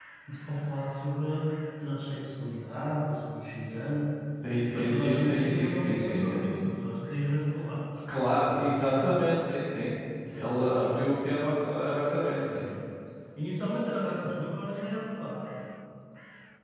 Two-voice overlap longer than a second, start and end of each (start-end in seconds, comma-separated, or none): 4.7-6.4